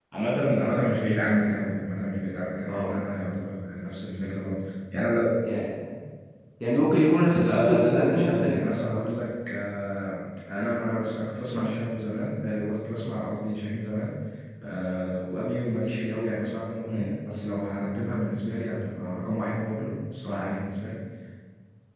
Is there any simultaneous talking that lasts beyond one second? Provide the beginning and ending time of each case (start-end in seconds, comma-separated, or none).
7.5-8.7